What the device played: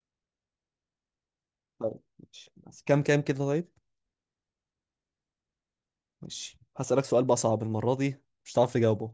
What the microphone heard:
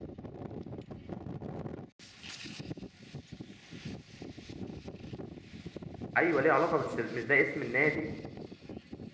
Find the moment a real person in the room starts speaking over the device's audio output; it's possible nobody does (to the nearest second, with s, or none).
6 s